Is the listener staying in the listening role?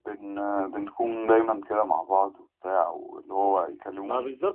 No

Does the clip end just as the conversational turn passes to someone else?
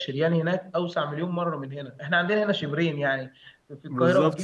No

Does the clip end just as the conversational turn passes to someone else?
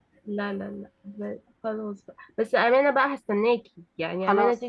No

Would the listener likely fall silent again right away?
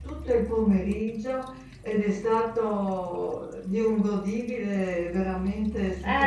No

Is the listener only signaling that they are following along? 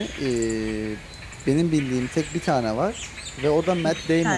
Yes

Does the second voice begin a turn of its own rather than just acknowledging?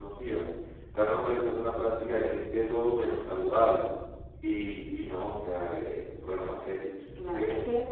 Yes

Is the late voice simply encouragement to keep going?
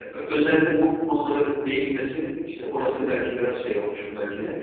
No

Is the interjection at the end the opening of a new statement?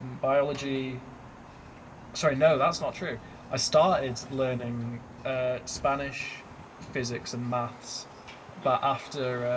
No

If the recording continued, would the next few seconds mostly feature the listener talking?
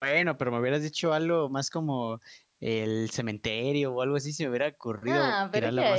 Yes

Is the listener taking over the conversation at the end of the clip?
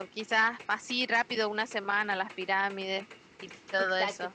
Yes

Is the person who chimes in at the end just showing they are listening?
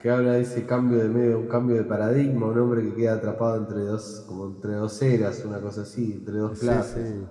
No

